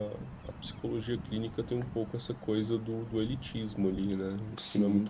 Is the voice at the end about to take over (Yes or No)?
Yes